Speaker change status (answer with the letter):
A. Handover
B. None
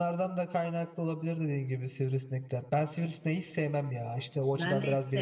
A